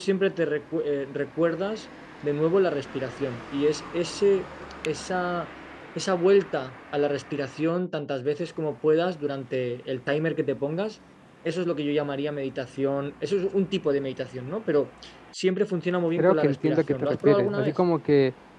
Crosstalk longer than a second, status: present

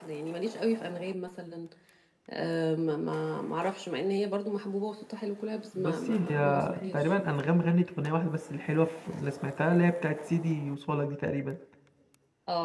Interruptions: present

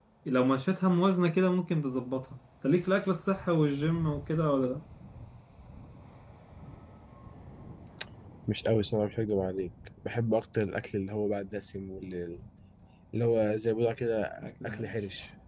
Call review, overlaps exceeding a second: none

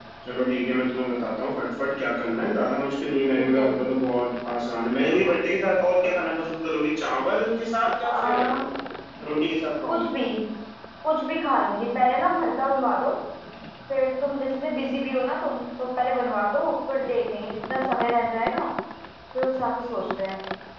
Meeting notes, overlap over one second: none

